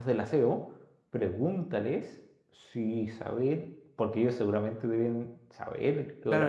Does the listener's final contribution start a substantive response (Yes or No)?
Yes